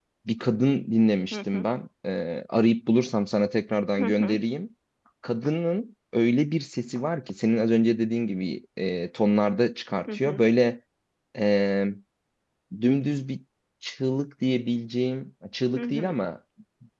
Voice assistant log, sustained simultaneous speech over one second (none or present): none